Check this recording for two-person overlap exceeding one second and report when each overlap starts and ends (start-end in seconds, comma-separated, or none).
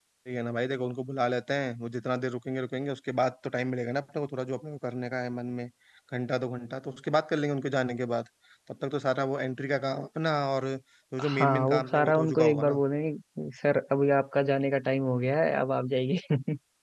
11.3-12.8